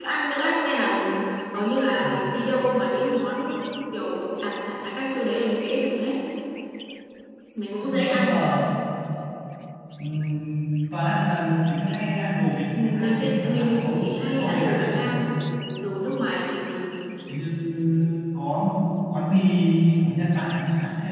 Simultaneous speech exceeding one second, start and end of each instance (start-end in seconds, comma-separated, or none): 12.7-15.1